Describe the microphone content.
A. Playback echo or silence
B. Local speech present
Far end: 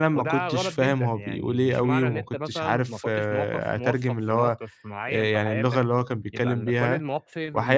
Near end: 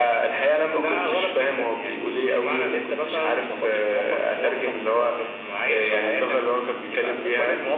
A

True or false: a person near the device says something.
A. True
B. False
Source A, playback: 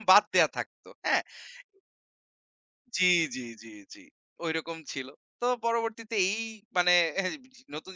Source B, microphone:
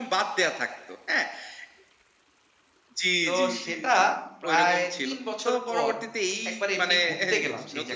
A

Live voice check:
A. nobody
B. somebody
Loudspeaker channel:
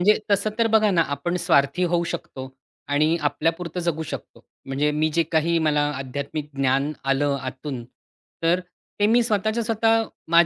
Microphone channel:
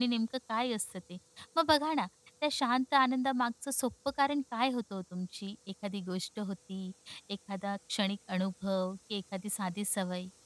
B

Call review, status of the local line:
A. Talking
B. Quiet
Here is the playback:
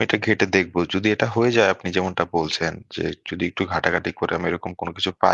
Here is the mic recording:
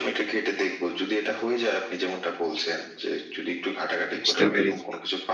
A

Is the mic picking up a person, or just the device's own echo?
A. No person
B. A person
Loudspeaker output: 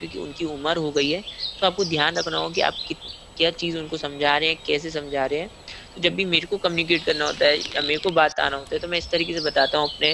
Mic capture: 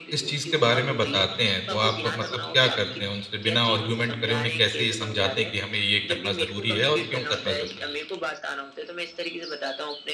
B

